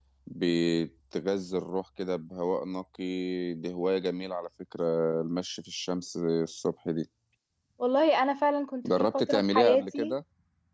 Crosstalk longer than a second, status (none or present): present